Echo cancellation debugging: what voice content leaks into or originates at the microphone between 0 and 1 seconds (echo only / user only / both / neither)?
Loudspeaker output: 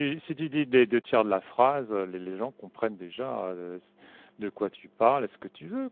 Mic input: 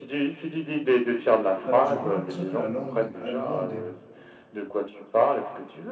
echo only